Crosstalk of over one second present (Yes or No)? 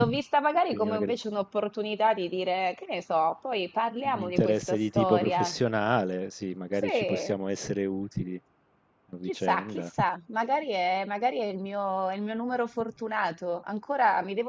Yes